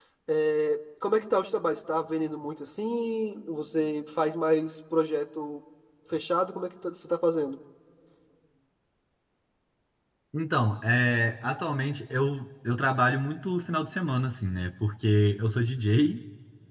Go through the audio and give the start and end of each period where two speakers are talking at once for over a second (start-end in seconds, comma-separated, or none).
none